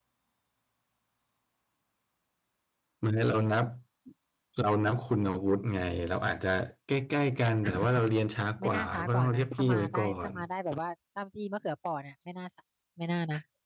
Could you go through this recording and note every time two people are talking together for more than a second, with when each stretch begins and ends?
8.6-10.3

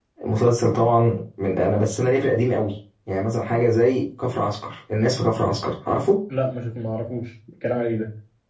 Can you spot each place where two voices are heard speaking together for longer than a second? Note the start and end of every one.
none

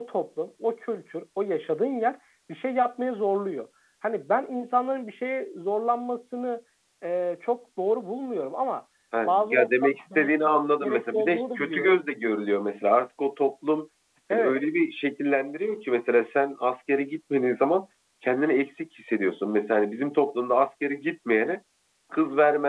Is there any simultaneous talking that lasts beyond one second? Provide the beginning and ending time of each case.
9.2-12.0

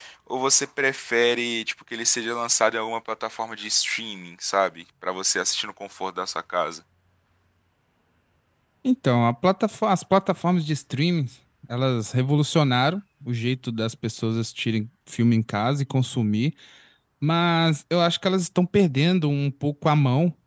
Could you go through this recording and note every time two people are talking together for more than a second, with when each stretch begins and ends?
none

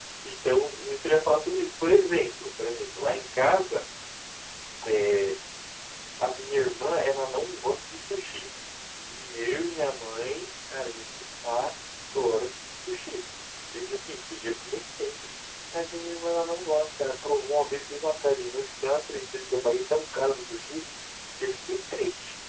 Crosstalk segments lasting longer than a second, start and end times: none

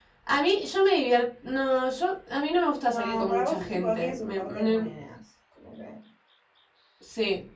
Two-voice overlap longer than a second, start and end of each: 2.8-4.8

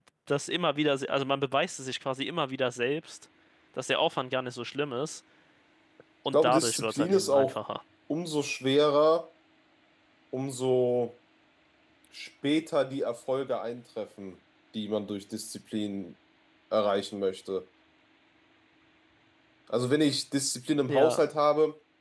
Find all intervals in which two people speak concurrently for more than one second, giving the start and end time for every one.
6.3-7.6

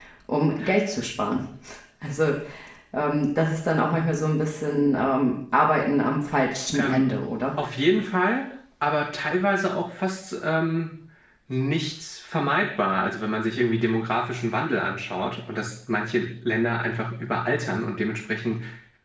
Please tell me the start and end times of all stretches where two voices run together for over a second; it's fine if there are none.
none

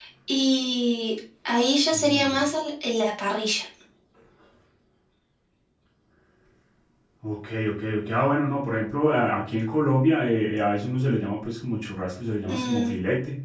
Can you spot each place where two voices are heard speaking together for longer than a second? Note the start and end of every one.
none

